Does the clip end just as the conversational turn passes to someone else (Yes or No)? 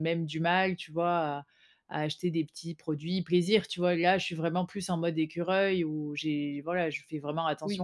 Yes